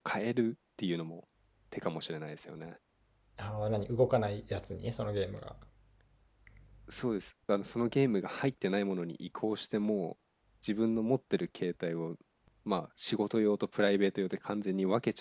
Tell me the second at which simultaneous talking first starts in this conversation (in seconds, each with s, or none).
none